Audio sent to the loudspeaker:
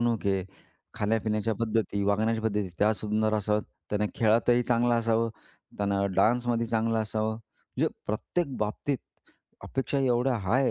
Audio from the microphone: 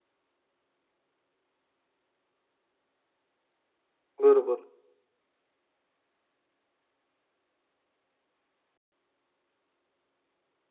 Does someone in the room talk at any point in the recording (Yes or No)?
Yes